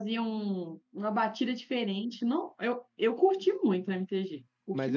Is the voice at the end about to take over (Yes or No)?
Yes